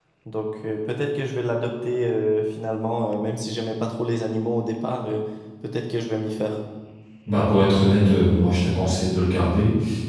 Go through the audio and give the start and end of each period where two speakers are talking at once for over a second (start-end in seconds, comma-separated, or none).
none